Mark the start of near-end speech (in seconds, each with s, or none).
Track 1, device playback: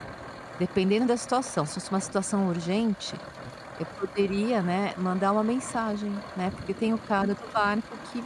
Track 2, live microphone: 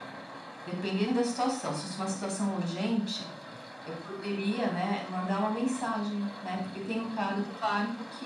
none